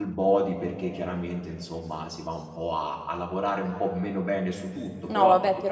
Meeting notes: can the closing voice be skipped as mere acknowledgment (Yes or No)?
No